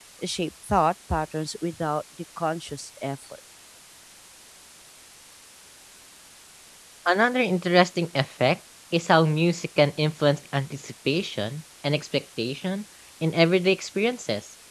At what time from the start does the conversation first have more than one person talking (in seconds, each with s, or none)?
none